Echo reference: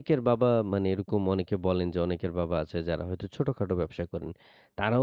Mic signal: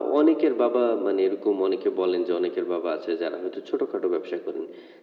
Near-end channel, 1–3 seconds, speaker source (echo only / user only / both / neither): echo only